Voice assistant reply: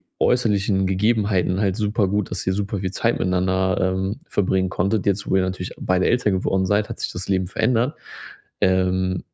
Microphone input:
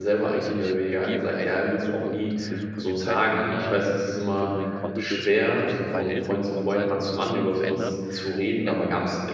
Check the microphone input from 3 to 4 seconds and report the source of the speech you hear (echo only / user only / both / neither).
both